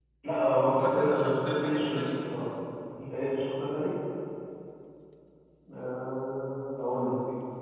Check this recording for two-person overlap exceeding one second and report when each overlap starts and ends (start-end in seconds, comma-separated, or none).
0.6-2.0